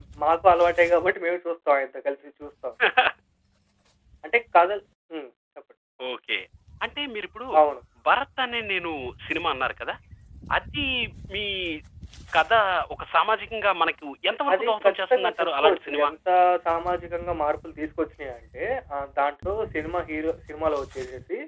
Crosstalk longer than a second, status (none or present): present